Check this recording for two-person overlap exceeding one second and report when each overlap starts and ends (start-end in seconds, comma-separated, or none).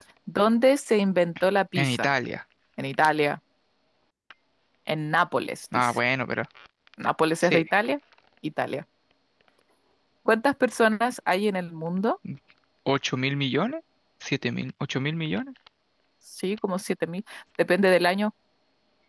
none